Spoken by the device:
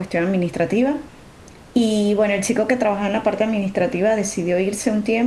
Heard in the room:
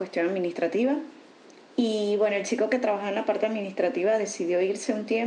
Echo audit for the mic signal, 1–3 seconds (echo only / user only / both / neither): echo only